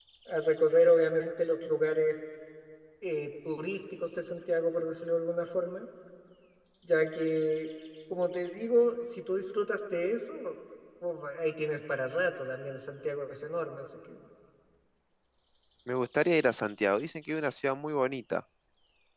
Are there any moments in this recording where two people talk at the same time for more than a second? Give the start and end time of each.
none

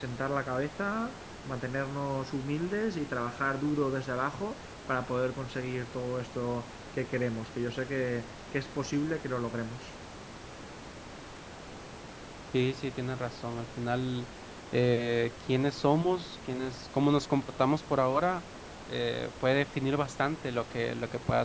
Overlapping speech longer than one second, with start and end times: none

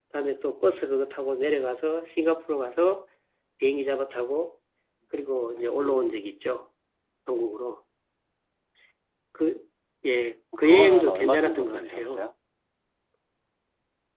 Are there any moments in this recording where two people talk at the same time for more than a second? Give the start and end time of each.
10.6-12.2

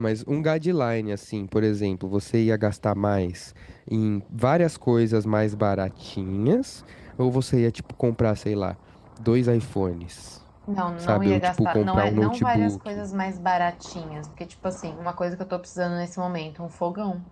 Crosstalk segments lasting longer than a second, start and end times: 11.0-13.1

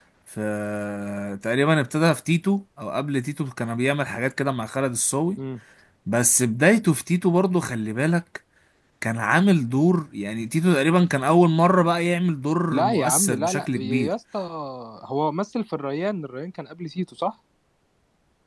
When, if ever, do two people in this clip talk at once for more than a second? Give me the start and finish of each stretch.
12.7-14.1

